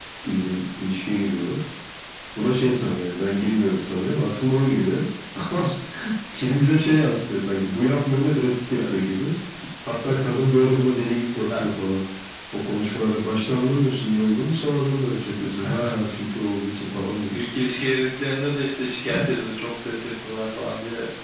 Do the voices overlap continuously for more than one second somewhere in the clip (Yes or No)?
No